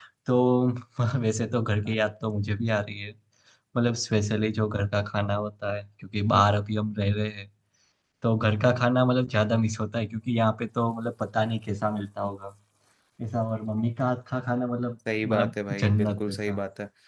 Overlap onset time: 15.1 s

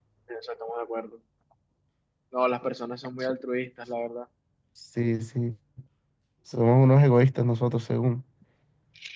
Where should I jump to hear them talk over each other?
none

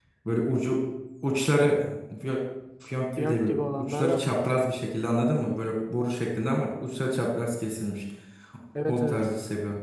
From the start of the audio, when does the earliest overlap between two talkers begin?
3.2 s

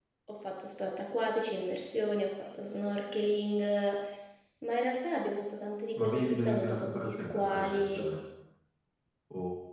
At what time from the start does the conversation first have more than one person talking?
6.0 s

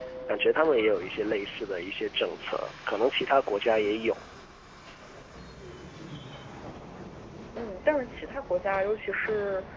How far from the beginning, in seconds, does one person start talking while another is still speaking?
none

